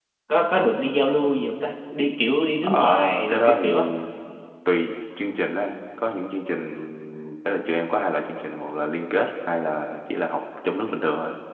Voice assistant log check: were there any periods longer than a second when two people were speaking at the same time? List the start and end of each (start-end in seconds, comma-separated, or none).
2.6-3.8